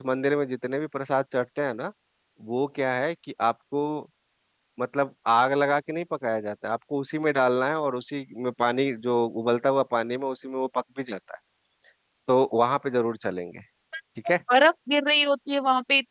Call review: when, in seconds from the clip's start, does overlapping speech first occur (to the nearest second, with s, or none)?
none